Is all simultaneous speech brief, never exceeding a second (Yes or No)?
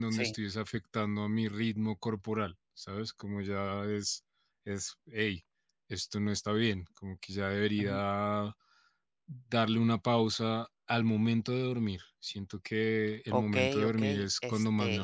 No